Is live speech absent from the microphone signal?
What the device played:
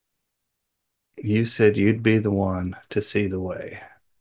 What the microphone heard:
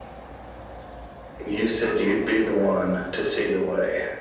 Yes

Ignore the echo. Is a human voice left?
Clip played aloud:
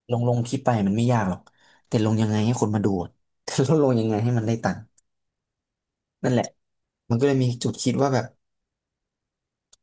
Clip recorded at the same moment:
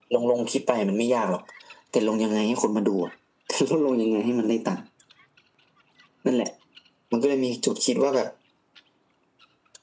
No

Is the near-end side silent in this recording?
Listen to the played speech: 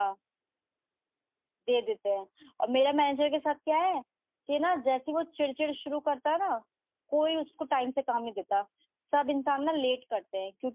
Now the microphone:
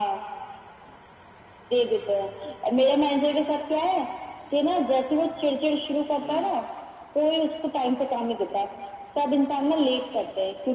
No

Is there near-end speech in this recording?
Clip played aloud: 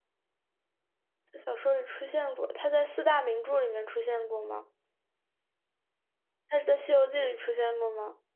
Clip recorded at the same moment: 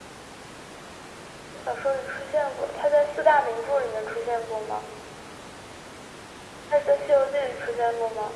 No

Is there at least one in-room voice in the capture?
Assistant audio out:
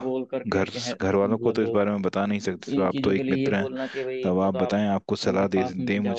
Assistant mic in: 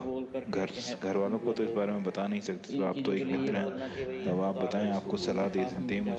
Yes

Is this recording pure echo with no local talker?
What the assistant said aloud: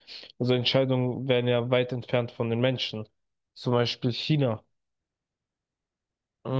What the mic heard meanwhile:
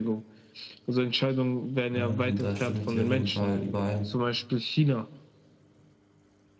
No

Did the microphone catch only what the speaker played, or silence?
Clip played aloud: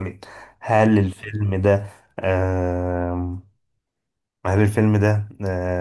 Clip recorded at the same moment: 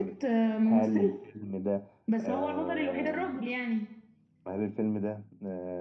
No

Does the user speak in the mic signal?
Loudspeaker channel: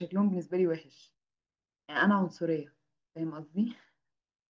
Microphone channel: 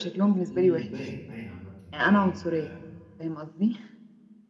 Yes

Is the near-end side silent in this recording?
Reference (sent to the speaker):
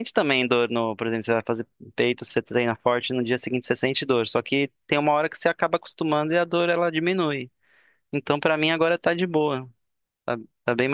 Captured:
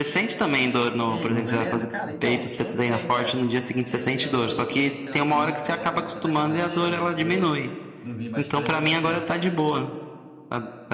No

